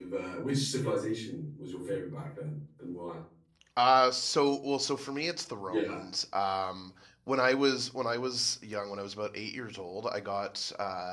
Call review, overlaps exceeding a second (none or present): none